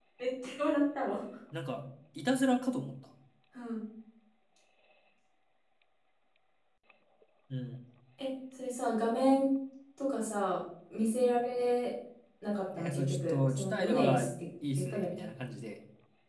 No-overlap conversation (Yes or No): No